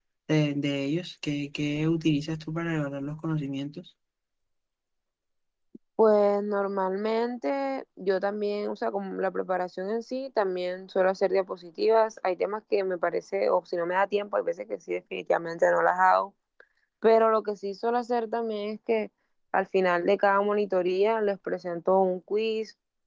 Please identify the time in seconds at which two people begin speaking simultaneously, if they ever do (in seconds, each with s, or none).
none